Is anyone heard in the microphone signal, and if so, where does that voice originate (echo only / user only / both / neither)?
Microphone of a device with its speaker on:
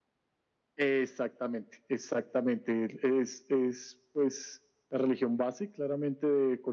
echo only